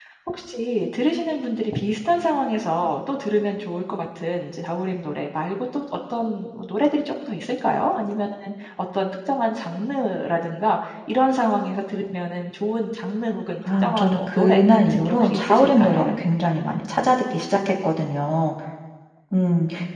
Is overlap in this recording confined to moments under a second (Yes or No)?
No